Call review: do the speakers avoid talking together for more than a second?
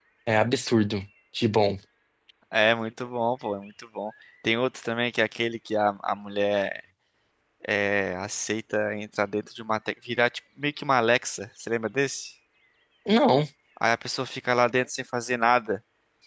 Yes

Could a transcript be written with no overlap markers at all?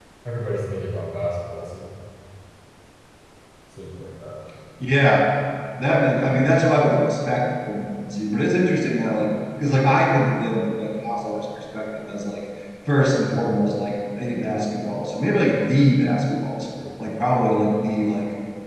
Yes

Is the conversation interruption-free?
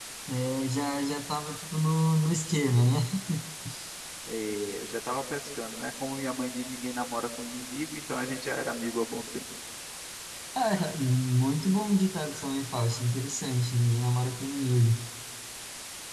Yes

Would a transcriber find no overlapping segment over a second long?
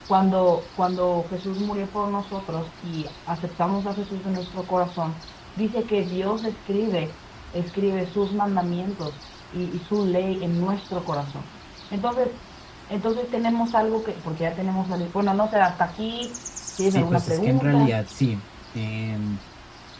No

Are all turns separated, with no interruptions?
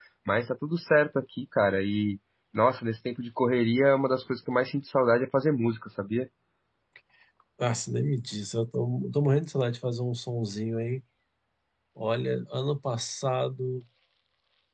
Yes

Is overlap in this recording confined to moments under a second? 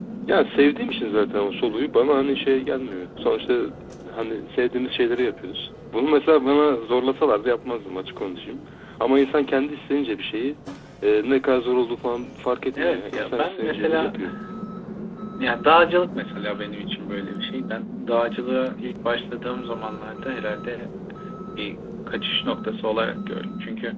No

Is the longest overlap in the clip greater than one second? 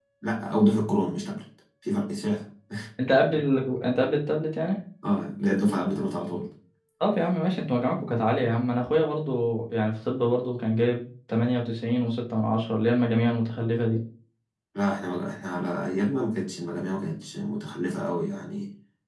No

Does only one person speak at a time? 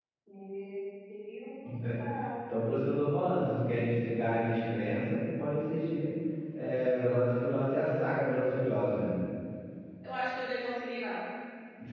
Yes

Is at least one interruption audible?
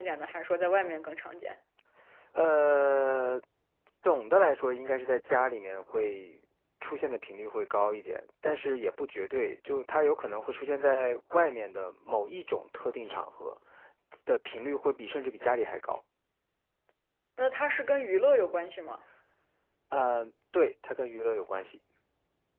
No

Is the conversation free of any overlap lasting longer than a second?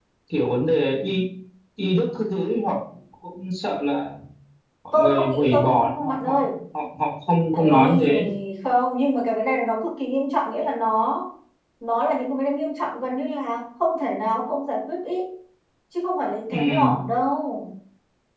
No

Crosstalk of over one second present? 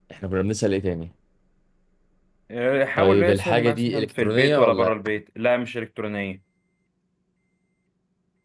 Yes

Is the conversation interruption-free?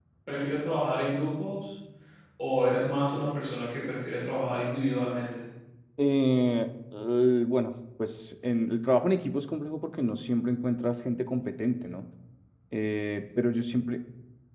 Yes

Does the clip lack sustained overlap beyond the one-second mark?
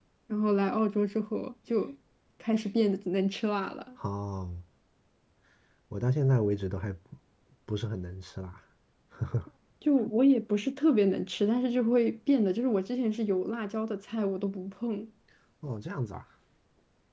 Yes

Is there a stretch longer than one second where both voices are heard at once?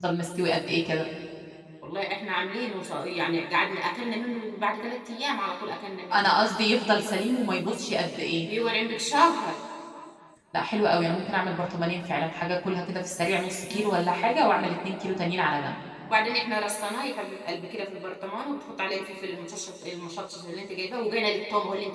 No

